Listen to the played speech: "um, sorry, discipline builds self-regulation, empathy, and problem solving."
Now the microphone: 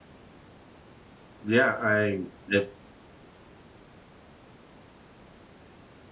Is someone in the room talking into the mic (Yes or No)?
Yes